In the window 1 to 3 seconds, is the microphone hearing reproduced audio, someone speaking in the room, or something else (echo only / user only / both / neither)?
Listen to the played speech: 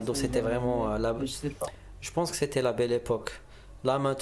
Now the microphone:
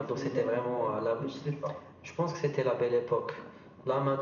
echo only